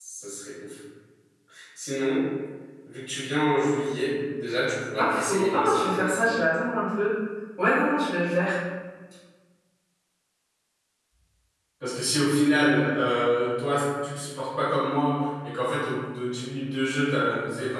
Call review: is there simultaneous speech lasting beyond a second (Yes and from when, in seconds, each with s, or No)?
Yes, from 5.0 s